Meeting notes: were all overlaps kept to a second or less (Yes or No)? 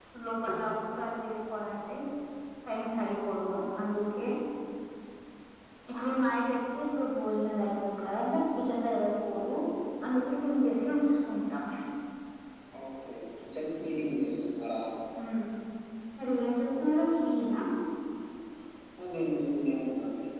Yes